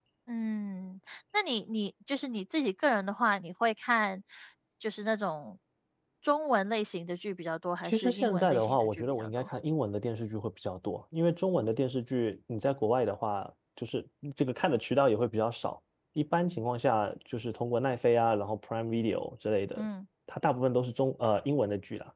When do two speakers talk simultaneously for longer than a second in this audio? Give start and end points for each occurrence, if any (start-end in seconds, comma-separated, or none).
7.8-9.5